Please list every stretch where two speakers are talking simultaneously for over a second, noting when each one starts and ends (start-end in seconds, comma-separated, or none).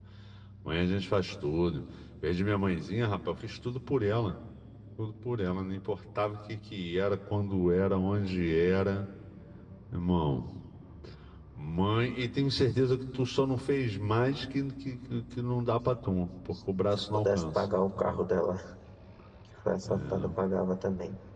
16.9-18.2